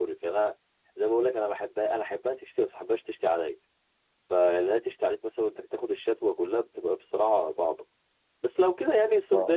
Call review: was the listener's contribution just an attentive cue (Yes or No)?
Yes